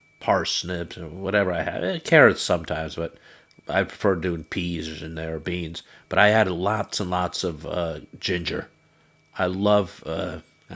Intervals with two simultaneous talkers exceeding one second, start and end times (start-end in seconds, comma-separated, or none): none